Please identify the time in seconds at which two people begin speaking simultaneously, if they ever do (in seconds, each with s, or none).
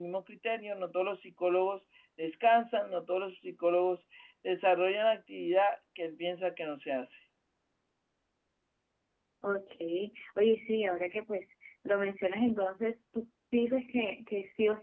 none